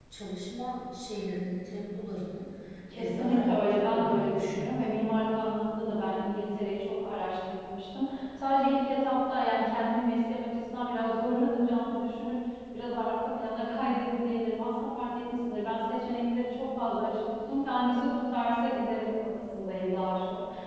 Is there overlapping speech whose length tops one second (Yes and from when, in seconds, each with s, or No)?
Yes, from 2.9 s